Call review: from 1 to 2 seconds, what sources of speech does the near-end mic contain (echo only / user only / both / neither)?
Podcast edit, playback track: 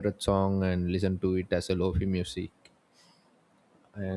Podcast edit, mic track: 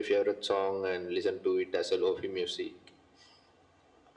echo only